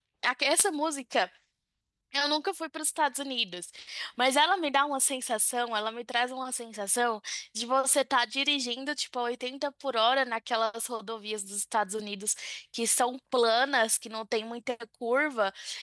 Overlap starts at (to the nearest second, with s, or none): none